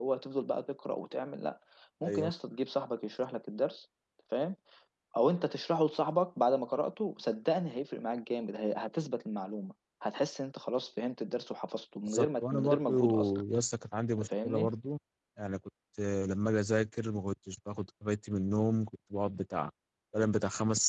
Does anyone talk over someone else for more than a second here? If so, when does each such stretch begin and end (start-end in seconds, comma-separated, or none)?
12.0-13.4